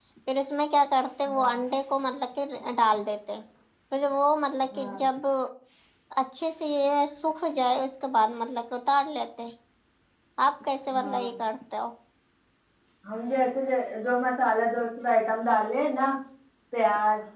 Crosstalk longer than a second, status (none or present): none